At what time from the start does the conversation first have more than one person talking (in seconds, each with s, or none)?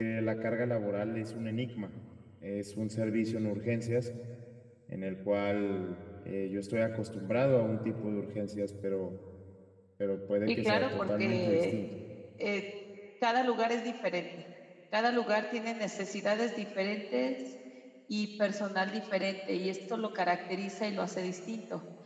10.5 s